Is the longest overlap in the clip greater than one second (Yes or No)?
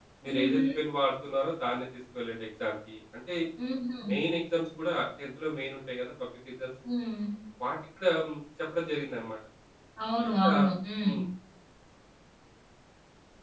No